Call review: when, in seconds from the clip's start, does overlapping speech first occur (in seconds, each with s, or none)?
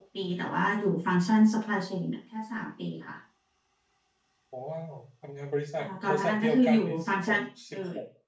5.8 s